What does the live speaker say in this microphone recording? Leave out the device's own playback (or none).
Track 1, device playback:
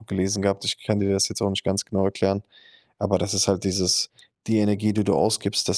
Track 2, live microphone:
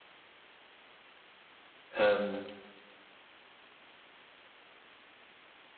ähm,